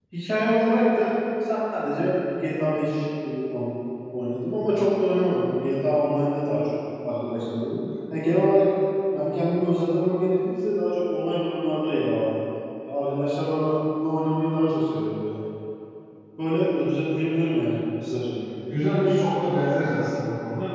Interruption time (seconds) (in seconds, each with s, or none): none